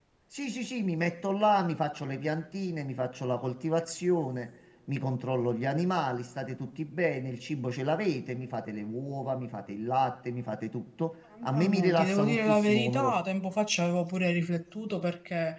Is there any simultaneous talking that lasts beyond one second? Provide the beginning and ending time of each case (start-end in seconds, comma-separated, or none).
11.4-13.2